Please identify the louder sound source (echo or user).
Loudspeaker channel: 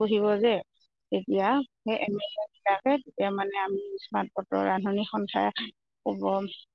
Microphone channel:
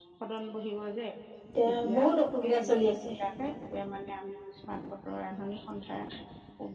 user